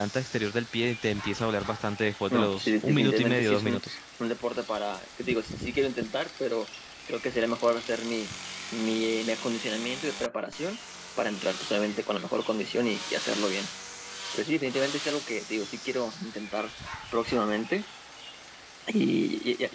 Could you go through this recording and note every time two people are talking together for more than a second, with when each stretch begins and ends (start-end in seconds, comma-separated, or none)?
2.3-4.0